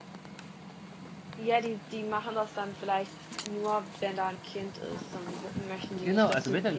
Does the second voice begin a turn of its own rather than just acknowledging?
Yes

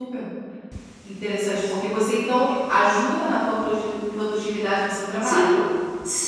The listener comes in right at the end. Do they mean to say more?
Yes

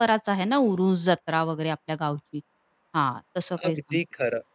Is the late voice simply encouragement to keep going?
No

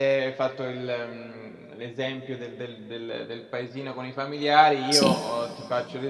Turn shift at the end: No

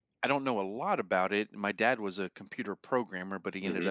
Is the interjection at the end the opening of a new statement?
No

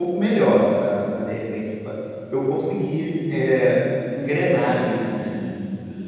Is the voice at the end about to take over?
Yes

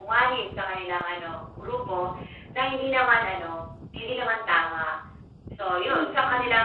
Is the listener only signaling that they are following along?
Yes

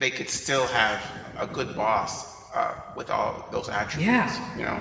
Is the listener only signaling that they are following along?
No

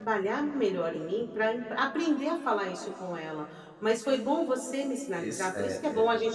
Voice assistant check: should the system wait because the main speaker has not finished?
Yes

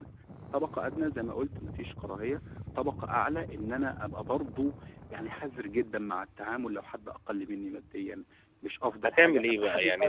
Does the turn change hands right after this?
Yes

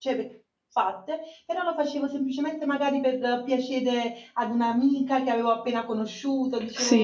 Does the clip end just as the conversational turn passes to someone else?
Yes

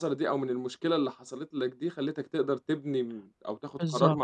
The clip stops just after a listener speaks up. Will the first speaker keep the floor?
Yes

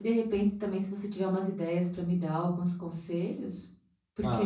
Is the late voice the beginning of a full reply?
Yes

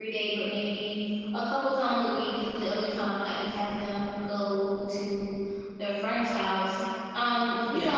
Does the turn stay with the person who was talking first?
Yes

